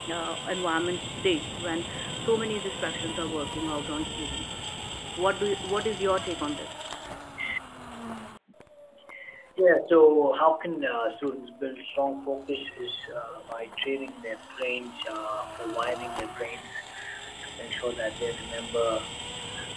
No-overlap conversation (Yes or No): Yes